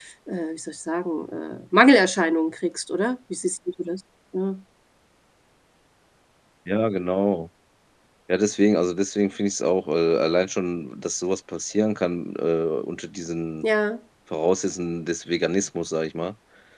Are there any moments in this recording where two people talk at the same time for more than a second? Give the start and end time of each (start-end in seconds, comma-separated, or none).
none